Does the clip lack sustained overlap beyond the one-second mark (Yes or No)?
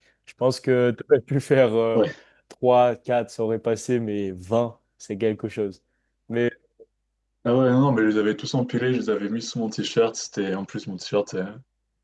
Yes